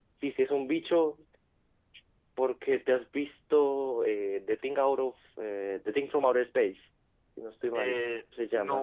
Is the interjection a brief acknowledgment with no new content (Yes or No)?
No